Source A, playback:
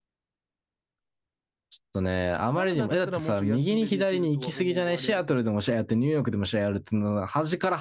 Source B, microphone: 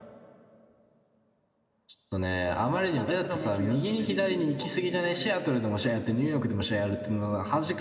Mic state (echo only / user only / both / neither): echo only